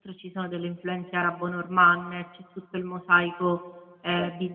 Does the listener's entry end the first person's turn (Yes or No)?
Yes